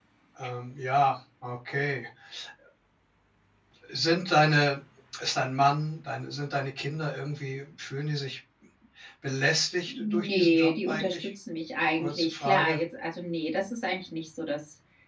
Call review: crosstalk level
present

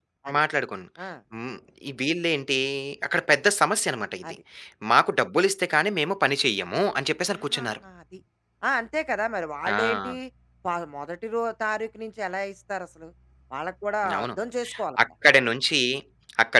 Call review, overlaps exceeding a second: none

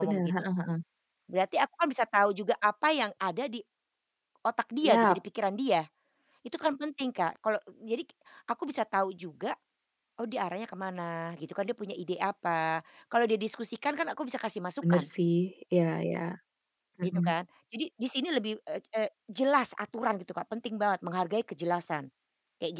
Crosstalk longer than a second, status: none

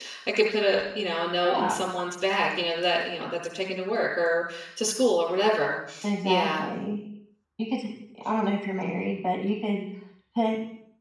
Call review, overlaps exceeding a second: none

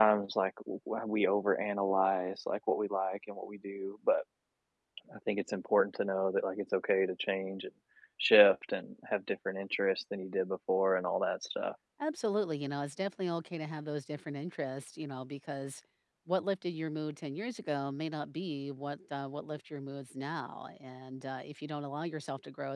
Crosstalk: none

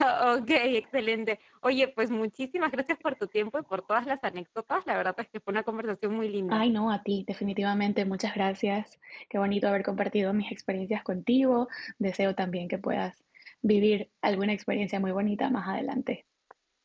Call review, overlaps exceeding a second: none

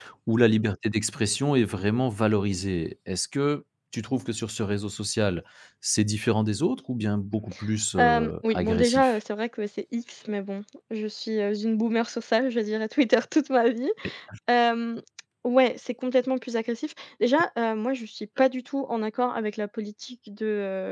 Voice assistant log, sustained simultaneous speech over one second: present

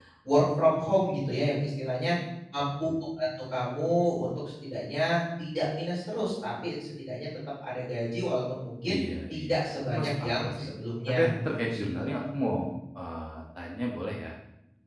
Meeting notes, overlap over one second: present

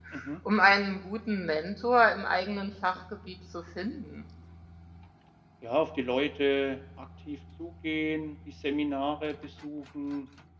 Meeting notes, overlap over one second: none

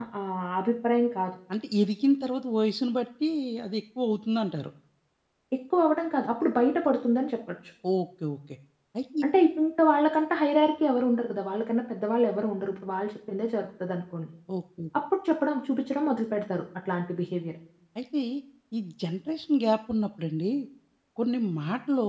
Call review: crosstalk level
none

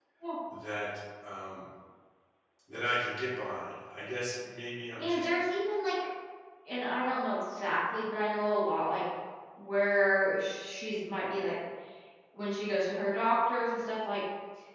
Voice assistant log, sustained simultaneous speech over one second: none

